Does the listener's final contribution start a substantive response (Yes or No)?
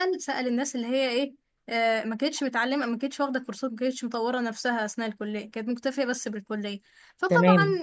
No